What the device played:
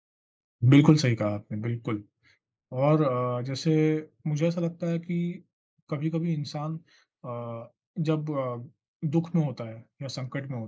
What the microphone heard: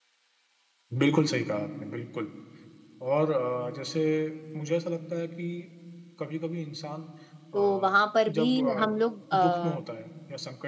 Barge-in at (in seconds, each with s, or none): 7.5 s